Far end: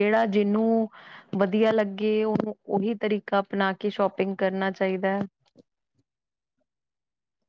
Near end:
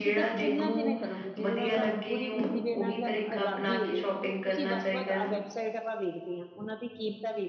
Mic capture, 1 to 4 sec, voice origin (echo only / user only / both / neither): both